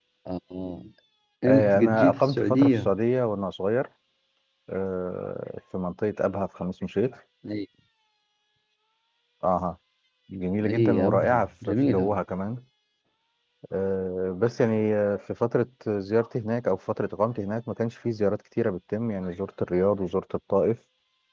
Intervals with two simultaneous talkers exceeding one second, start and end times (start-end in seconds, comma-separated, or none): 1.5-2.9, 10.7-12.2